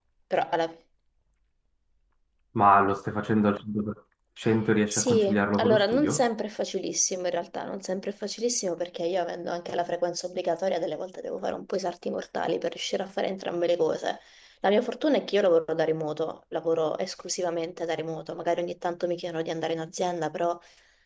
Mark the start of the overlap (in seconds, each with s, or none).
4.9 s